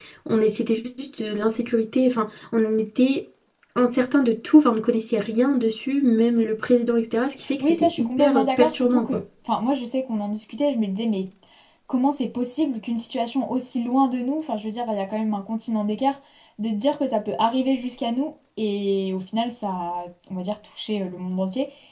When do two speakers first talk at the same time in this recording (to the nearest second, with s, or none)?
8 s